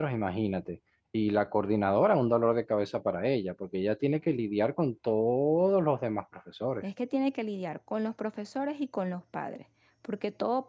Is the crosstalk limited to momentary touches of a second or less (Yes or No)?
Yes